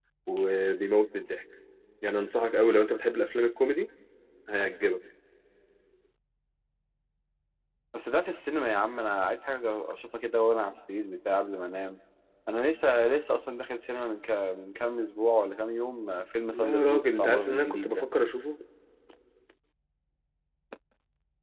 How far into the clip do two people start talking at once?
16.5 s

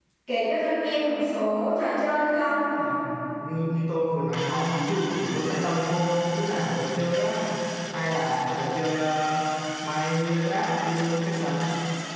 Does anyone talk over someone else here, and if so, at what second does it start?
none

